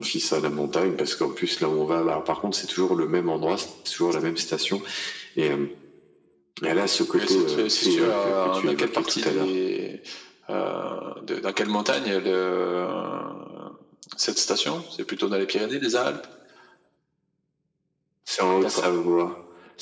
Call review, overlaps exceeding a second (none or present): present